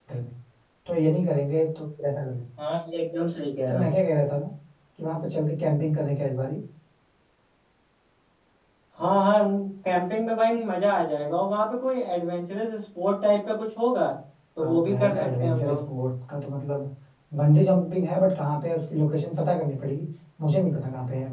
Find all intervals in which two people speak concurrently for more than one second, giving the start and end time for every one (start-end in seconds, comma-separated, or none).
14.6-15.8